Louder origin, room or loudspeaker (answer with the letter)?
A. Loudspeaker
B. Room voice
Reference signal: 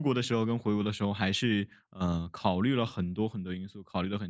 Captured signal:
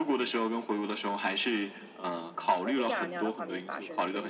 A